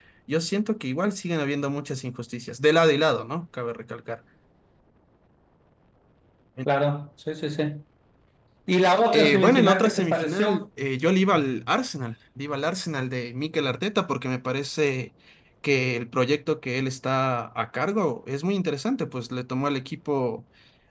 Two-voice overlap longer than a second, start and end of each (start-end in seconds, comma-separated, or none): 9.1-10.6